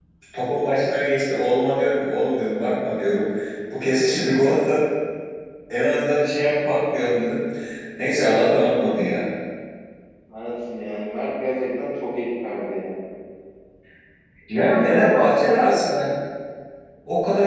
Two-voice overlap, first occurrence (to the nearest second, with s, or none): 15 s